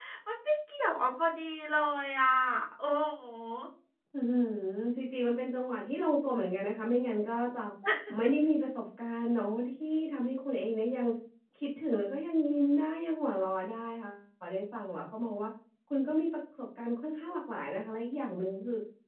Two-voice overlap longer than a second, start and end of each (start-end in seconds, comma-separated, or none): none